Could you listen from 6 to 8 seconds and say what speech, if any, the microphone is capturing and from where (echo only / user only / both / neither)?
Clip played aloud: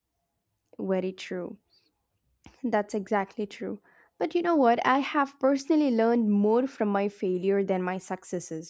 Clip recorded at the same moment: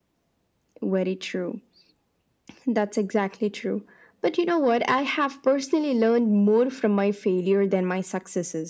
echo only